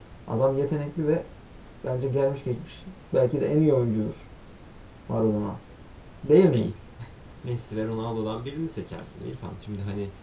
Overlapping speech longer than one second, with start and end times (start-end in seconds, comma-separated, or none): none